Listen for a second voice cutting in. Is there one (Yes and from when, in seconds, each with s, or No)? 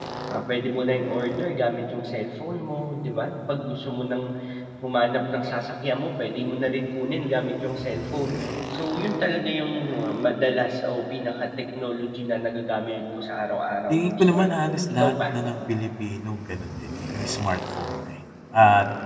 Yes, from 13.9 s